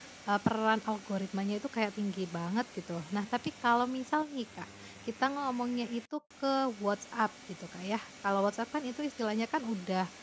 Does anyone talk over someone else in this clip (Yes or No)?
No